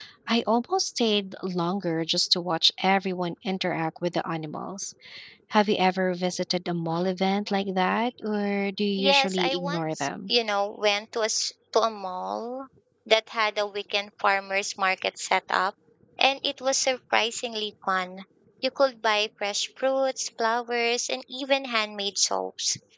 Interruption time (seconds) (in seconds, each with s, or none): 9.0 s